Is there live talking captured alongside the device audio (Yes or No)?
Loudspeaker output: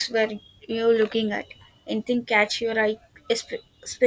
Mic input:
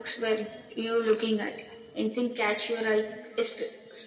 No